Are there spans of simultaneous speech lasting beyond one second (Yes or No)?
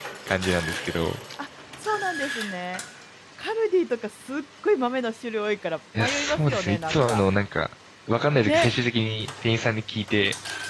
Yes